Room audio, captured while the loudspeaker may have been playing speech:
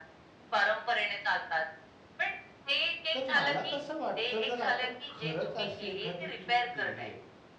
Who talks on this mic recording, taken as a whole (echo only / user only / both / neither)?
both